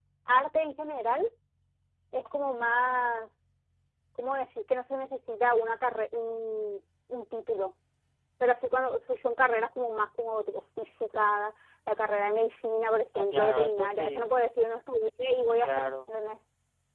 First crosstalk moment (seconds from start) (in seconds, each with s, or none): 13.2 s